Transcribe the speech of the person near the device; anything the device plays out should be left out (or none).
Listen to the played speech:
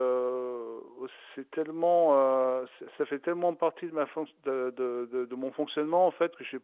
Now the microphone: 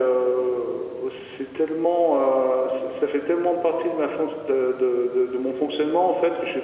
none